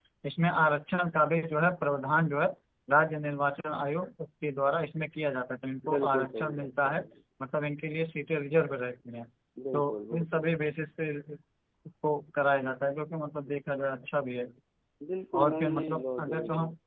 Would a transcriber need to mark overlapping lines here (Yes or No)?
Yes